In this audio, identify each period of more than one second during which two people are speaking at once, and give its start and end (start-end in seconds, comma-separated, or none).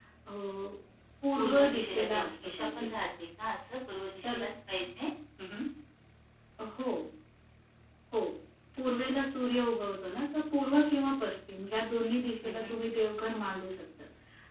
1.4-2.9